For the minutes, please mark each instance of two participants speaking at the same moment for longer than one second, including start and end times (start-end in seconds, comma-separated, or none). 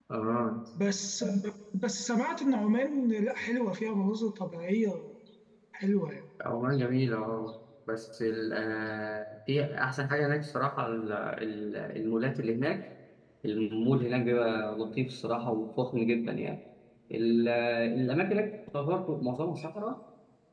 none